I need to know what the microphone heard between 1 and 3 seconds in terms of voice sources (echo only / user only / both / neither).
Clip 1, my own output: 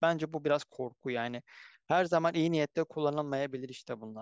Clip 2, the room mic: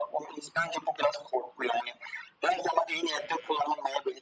echo only